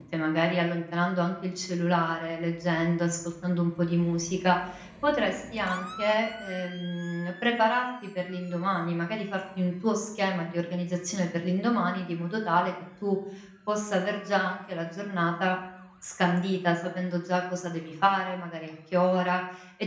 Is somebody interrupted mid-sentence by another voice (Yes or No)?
No